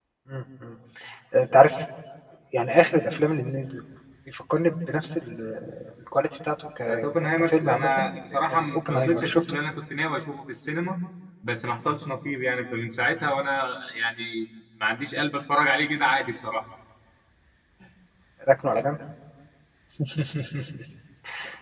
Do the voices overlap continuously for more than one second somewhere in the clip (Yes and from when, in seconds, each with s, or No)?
Yes, from 6.8 s